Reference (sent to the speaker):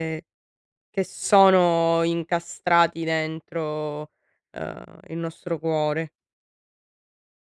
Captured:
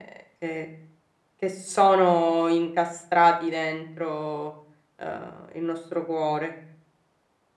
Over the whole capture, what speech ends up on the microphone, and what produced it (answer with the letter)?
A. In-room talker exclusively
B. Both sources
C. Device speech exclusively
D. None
C